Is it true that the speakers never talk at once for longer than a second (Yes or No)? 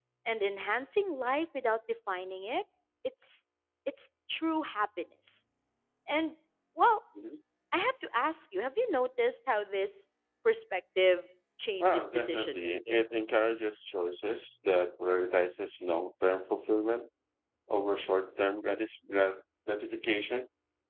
No